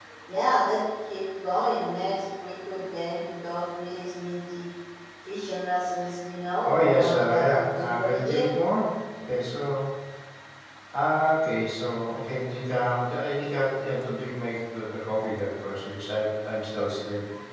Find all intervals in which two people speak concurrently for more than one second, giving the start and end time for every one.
6.6-8.5

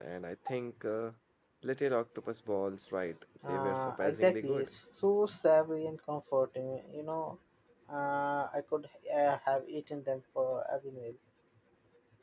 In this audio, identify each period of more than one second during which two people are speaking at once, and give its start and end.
3.5-4.7

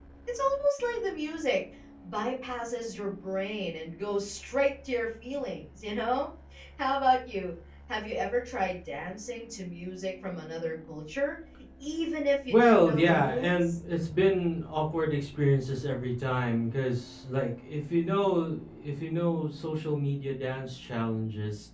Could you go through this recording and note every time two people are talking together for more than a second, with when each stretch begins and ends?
12.5-13.7

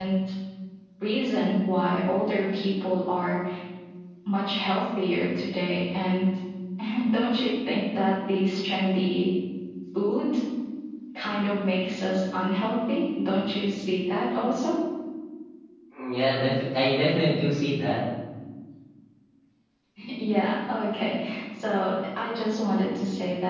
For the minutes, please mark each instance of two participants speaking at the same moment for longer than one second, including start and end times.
none

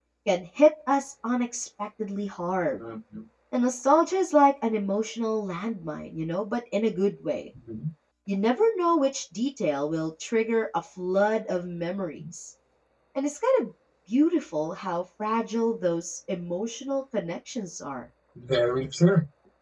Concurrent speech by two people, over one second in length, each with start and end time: none

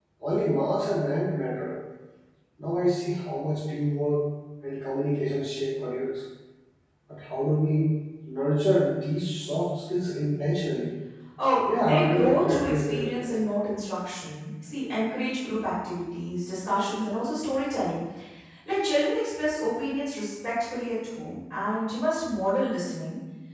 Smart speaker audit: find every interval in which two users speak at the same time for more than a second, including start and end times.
11.8-13.4

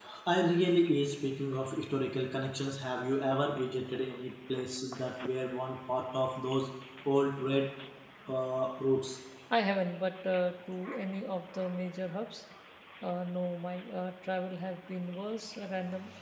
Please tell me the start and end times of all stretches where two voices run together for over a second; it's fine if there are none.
none

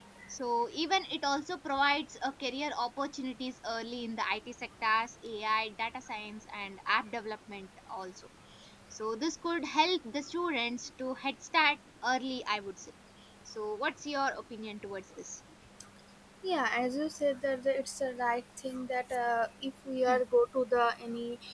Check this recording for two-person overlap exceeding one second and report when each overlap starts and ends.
none

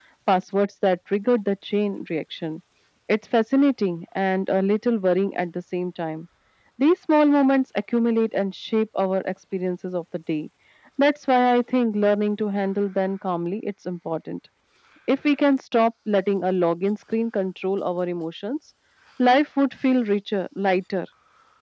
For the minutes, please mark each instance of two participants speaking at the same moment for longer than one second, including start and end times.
none

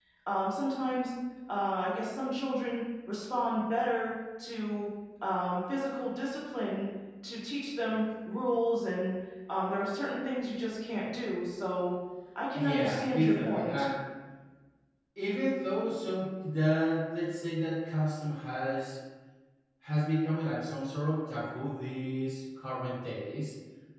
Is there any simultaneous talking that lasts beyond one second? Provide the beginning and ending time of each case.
12.5-13.9

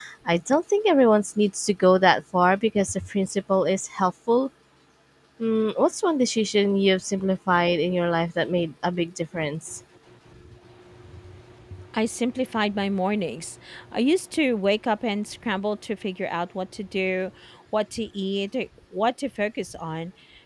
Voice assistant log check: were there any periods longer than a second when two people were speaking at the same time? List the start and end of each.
none

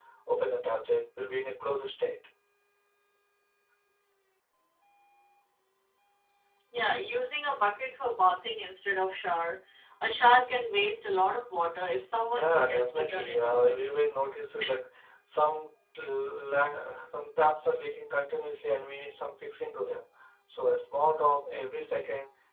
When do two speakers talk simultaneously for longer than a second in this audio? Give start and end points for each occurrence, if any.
12.3-13.6

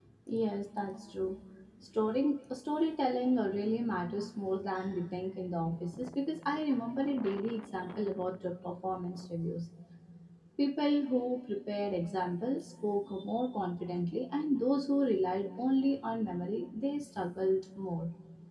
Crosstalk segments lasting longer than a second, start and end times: none

